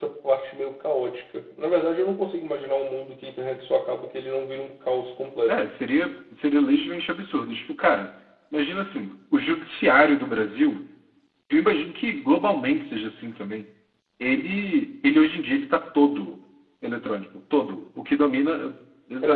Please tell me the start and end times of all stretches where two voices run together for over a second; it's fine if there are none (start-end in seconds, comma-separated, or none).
none